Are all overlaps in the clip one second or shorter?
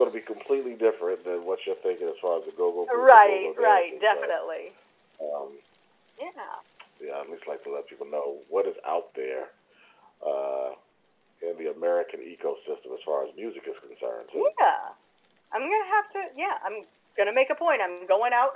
No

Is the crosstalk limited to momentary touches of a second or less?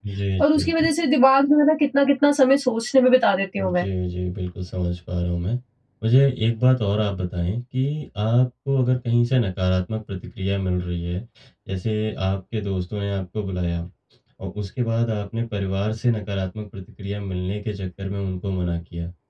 Yes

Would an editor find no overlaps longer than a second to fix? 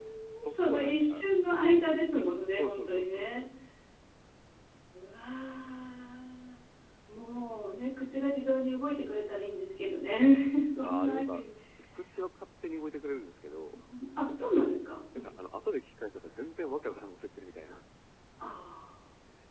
No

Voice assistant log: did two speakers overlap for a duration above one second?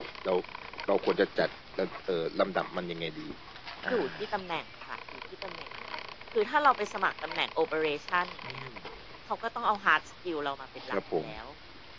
No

